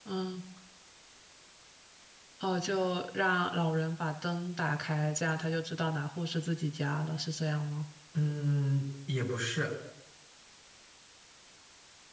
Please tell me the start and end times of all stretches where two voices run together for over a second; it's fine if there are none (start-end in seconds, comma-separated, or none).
none